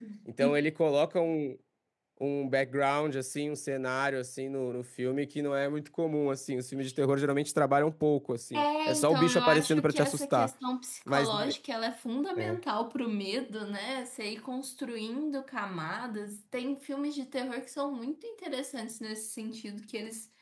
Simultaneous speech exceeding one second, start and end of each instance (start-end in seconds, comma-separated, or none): 8.5-10.5